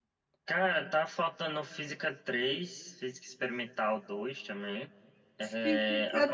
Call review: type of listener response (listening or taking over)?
taking over